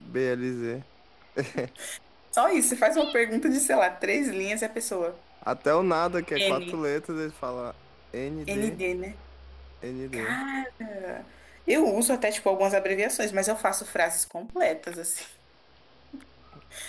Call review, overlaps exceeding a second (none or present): none